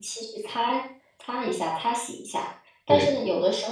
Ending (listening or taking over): listening